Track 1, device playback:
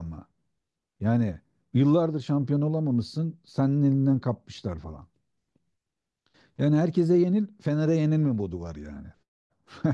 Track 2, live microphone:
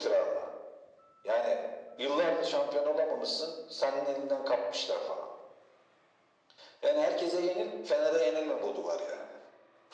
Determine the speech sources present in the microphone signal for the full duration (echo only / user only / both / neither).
echo only